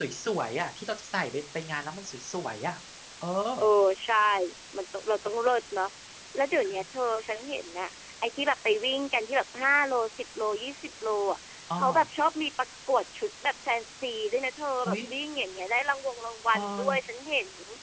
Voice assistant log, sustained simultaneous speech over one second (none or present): none